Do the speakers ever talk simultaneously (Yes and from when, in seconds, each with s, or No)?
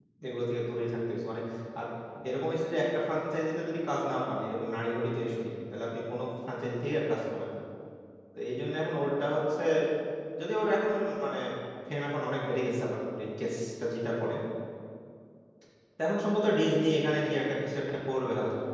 No